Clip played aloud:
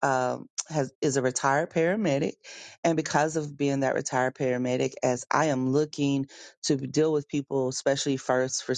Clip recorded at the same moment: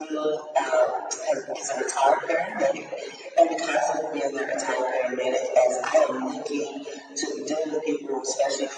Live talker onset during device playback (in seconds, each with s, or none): none